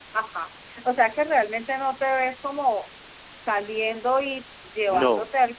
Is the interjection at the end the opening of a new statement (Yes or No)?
No